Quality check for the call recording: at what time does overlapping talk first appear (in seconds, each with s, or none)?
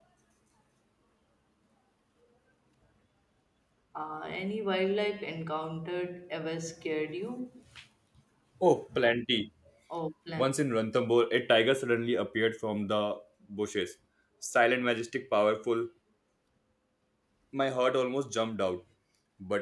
none